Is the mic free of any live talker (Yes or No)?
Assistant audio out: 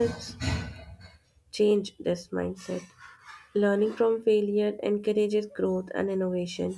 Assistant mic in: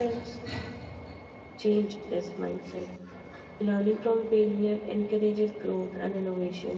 Yes